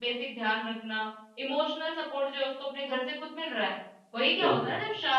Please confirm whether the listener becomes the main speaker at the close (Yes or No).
No